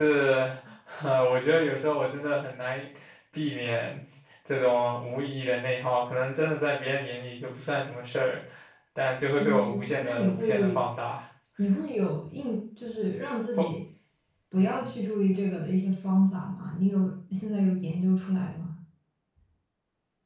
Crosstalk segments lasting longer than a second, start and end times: 9.4-10.8

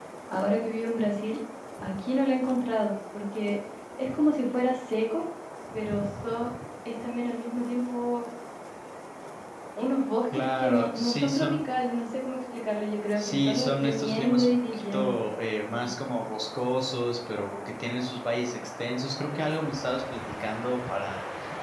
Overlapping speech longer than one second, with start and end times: 10.3-11.5, 13.2-15.2

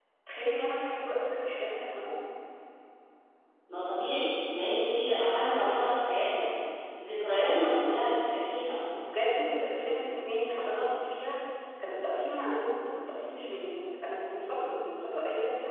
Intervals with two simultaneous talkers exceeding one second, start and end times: none

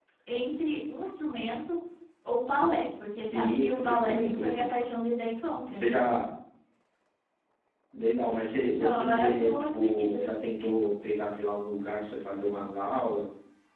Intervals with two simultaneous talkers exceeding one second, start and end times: 3.3-4.7, 8.7-10.2

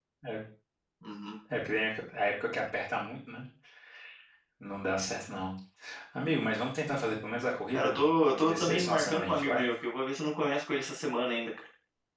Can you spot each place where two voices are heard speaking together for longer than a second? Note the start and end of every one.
7.7-9.7

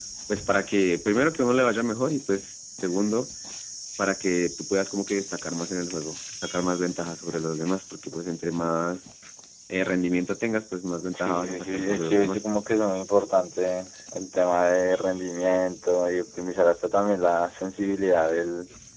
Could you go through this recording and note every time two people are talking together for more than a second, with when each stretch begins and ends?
11.1-12.4

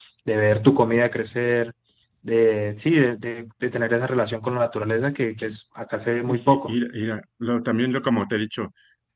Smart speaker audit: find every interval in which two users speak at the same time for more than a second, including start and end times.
none

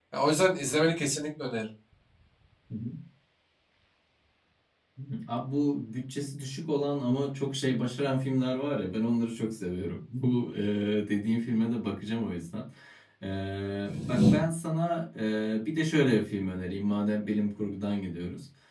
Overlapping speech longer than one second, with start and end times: none

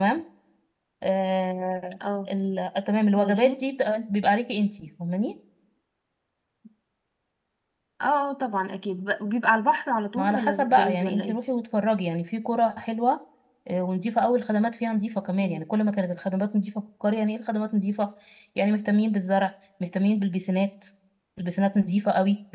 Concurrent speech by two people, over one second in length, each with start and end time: 10.2-11.4

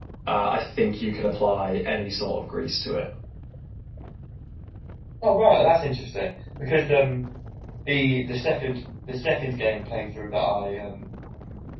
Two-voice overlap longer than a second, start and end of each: none

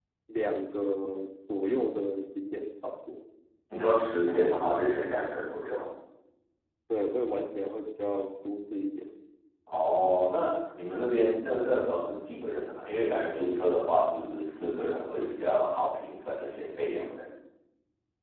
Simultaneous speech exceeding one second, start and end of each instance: none

